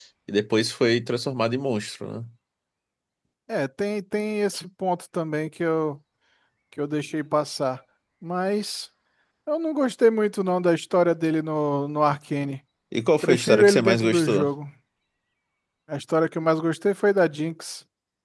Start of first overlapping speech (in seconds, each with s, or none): 13.2 s